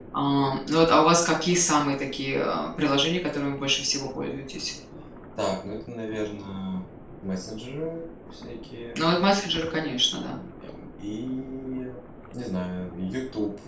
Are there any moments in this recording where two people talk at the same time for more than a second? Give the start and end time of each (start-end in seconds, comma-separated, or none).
none